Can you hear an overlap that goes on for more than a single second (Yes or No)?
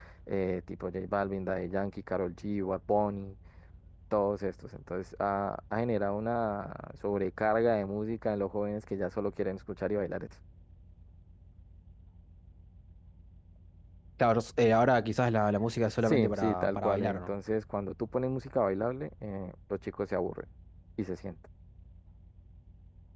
Yes